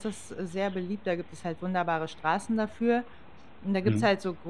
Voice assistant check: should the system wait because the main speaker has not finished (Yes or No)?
Yes